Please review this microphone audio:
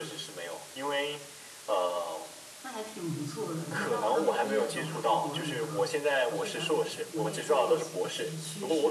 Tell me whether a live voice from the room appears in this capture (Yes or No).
Yes